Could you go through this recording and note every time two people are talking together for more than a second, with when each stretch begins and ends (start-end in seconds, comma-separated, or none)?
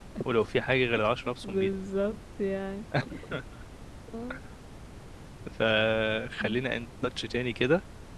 none